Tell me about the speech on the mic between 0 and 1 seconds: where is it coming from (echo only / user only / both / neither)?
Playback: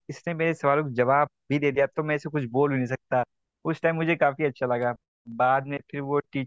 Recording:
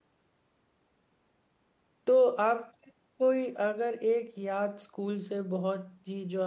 neither